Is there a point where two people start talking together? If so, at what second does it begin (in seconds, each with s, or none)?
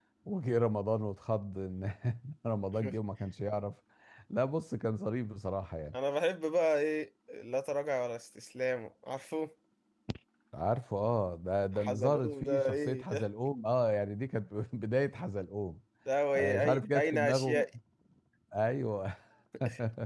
11.8 s